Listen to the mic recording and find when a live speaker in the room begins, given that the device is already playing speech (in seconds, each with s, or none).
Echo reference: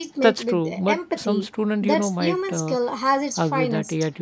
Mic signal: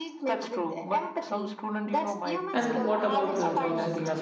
2.5 s